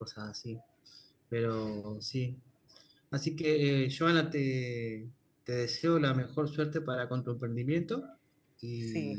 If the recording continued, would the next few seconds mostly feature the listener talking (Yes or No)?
Yes